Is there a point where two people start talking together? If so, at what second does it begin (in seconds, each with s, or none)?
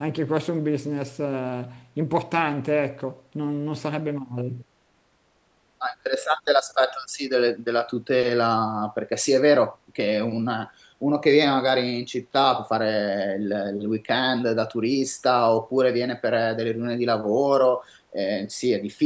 none